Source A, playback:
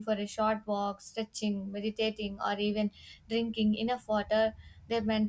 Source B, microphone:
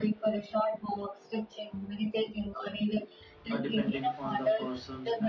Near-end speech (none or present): present